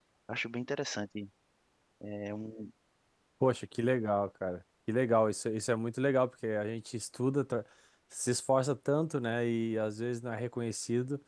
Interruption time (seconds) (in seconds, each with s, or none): none